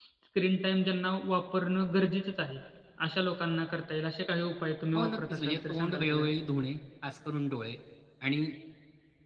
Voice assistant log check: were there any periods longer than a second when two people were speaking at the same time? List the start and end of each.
5.0-6.3

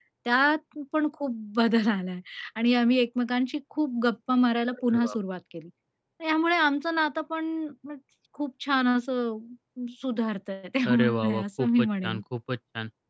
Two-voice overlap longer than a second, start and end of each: 10.8-12.2

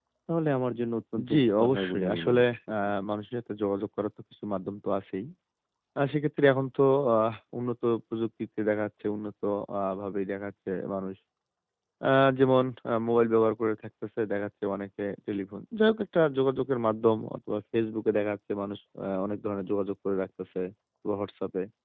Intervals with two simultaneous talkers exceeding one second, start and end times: 1.3-2.9

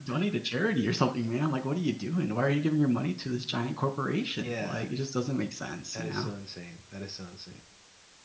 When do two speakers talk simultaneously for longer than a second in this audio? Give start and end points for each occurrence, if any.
none

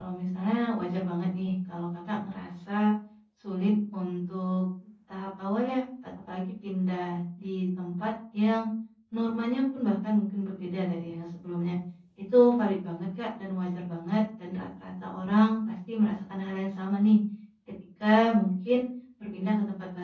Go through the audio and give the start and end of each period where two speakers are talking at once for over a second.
none

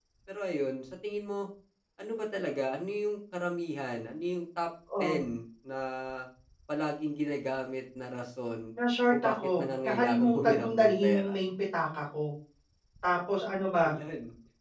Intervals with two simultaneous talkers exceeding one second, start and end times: 9.1-11.4

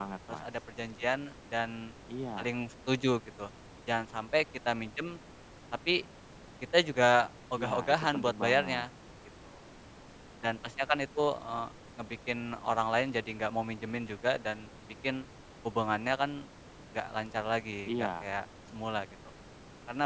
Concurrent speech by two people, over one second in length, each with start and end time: 7.5-8.8

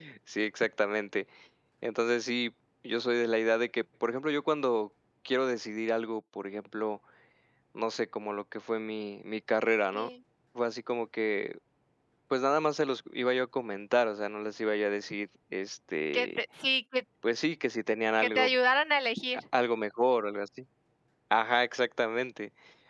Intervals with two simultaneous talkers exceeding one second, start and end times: none

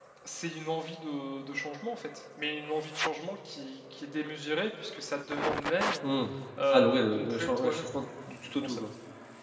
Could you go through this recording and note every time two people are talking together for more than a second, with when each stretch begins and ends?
6.7-7.9

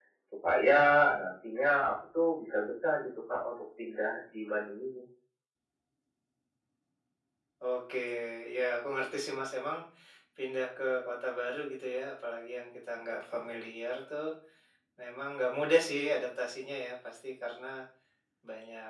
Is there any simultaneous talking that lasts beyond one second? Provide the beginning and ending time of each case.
none

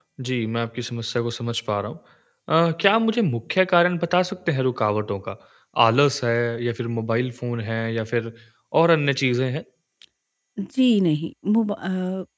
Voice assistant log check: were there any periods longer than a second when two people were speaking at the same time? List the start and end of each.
none

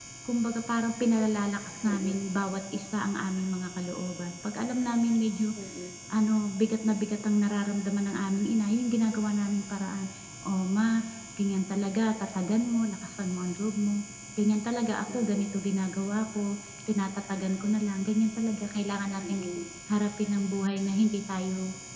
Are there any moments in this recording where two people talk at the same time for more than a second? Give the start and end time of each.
none

